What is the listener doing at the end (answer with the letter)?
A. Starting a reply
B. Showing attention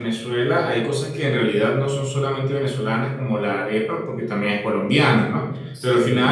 B